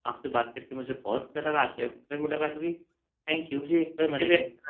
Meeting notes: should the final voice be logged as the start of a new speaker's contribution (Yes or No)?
Yes